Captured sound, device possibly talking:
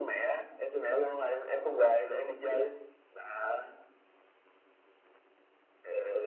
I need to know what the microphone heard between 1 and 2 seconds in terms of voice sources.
echo only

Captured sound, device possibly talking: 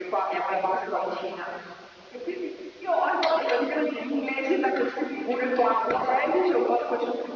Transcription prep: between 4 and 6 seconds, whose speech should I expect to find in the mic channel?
echo only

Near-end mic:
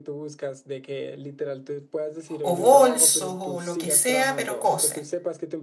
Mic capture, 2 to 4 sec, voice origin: both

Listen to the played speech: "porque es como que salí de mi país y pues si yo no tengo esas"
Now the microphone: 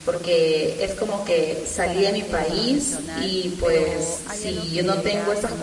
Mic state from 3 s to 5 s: both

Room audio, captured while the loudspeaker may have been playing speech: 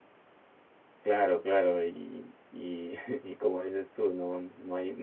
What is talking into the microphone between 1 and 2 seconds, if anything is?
user only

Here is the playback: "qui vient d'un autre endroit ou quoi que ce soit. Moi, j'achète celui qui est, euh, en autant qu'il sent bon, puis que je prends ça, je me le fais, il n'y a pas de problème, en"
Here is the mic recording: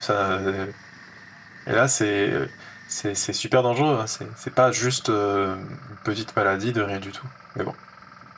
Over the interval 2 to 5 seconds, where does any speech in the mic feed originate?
user only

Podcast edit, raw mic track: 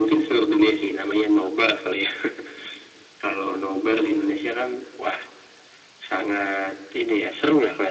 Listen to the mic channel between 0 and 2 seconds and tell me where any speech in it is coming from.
echo only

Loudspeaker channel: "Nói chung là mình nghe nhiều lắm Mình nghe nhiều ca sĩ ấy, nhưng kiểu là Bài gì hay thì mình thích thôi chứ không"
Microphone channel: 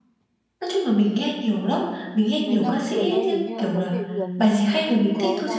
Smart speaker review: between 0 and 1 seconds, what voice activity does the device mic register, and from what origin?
echo only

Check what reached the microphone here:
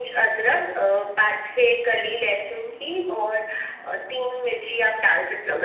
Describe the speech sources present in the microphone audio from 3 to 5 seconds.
echo only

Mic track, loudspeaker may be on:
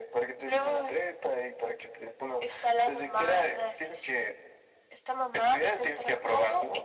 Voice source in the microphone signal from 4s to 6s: echo only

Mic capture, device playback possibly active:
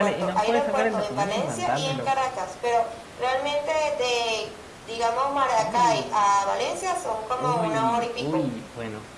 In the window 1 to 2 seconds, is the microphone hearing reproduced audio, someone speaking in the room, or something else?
both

